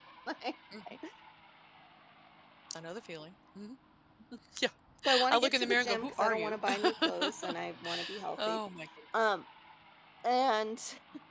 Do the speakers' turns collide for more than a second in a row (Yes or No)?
Yes